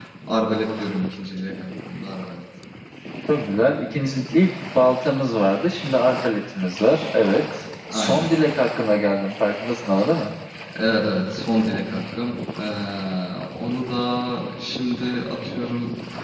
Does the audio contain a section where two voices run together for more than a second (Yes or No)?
No